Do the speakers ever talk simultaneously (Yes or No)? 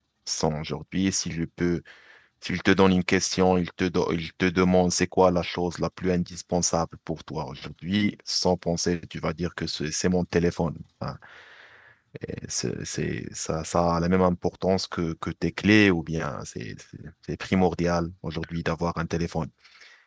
No